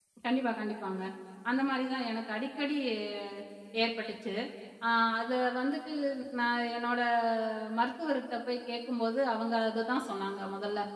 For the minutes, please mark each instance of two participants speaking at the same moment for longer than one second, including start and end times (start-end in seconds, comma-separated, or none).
none